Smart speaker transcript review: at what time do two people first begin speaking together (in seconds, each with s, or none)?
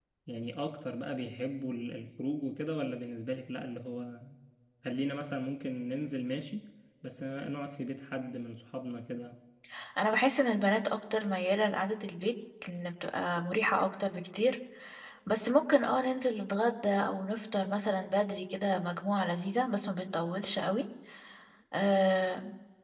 none